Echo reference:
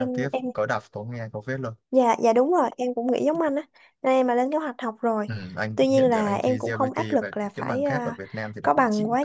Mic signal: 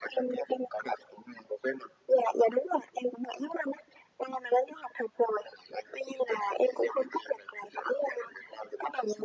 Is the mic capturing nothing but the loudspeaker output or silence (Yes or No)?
Yes